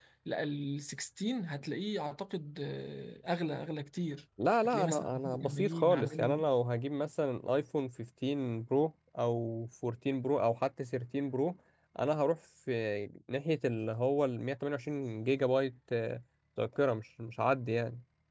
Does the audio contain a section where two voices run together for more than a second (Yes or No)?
Yes